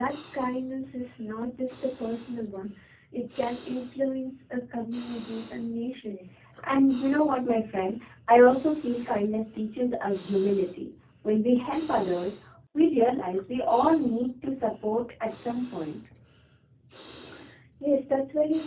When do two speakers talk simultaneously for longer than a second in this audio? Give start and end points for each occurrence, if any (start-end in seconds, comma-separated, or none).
none